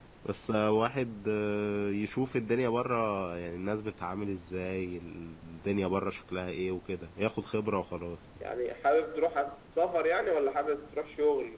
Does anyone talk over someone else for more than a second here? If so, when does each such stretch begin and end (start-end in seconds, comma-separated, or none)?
none